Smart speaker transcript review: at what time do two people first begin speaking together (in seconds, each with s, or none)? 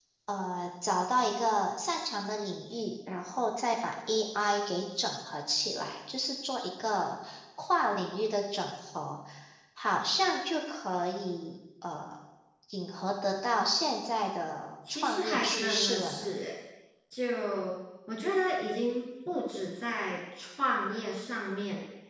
14.9 s